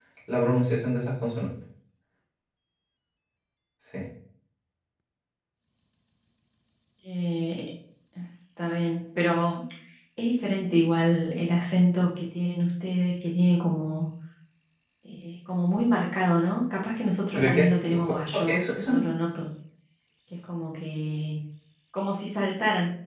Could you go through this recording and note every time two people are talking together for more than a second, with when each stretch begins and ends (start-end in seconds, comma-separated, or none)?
17.3-19.0